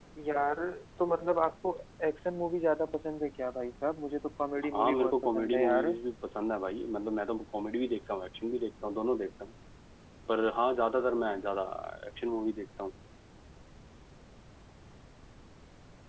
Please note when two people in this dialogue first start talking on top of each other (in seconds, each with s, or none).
4.6 s